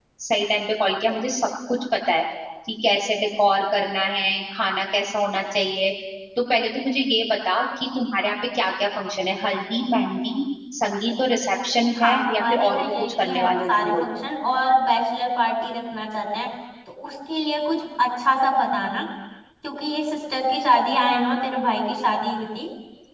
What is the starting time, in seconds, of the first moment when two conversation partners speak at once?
12 s

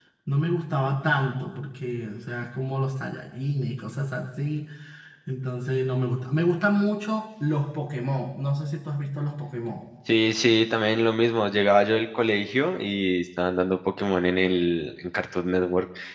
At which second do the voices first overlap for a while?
none

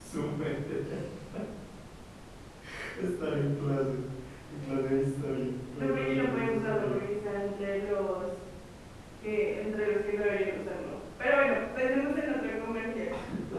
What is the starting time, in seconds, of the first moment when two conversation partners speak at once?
6 s

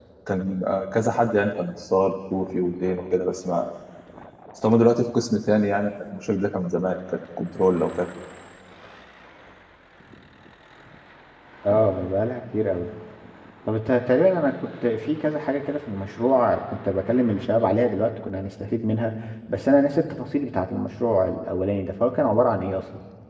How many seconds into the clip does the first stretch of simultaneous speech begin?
none

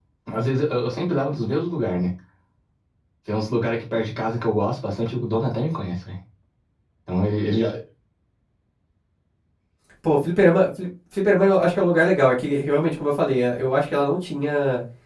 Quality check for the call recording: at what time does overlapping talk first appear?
none

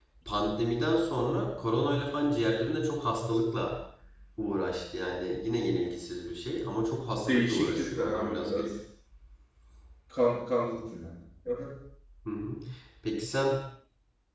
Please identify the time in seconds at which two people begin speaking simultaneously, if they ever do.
7 s

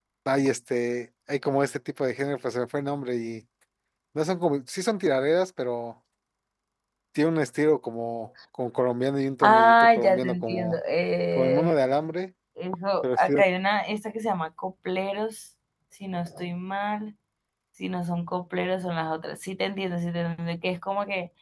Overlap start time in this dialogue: 9 s

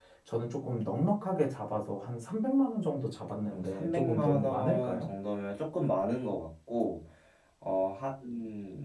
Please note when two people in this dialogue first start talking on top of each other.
3 s

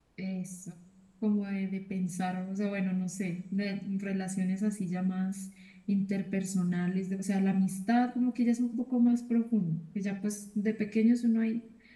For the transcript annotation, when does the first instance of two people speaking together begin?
none

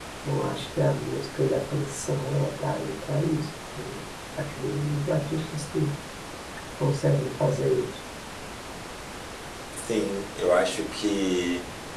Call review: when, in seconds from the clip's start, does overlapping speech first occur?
none

